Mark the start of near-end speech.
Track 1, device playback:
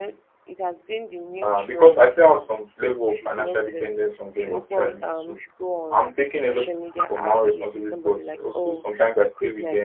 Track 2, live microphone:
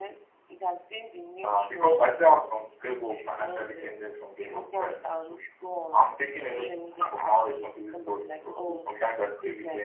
none

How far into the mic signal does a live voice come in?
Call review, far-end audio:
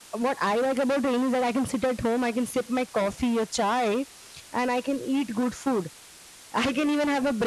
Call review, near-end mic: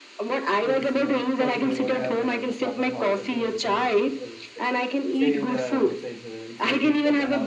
0.6 s

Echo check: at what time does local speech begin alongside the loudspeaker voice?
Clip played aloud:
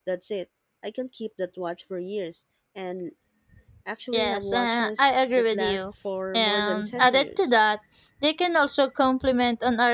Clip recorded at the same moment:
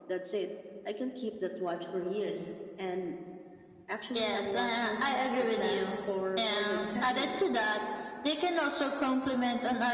none

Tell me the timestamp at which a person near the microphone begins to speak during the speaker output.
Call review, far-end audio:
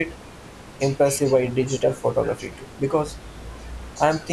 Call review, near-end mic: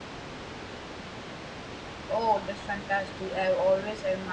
2.1 s

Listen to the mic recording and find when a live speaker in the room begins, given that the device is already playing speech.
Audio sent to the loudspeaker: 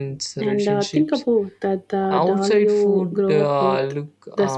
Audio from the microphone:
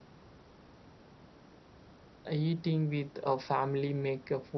2.3 s

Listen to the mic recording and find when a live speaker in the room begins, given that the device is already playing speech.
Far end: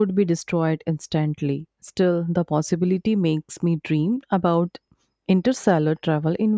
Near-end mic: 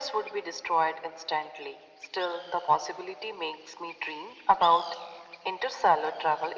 none

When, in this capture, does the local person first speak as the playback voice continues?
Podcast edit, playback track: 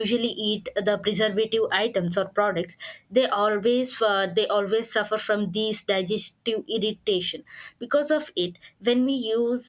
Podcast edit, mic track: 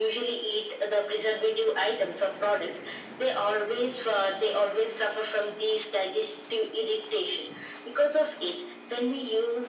none

